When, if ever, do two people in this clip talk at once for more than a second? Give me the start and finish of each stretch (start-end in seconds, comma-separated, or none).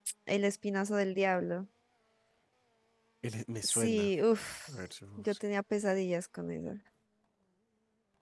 none